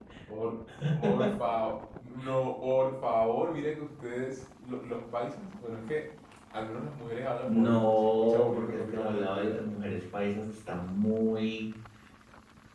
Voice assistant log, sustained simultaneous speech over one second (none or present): present